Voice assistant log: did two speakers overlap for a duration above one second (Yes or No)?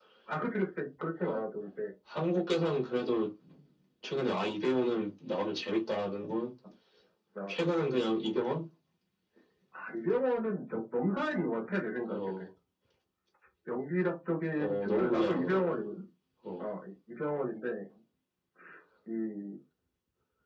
Yes